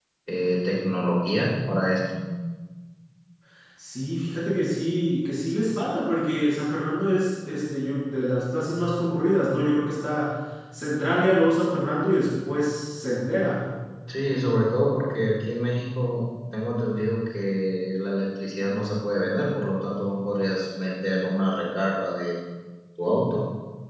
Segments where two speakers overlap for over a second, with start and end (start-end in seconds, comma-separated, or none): none